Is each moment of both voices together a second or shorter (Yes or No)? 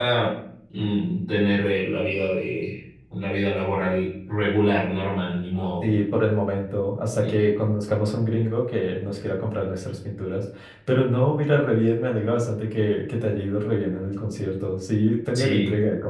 Yes